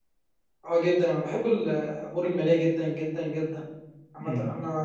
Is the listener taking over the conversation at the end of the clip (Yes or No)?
No